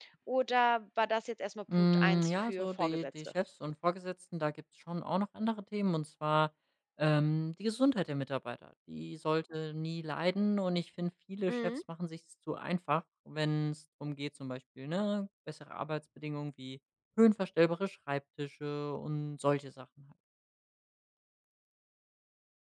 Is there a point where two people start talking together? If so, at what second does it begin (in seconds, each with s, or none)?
1.8 s